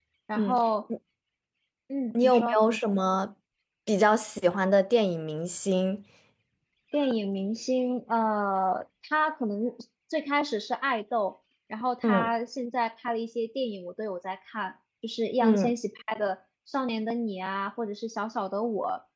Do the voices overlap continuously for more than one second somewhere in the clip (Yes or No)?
No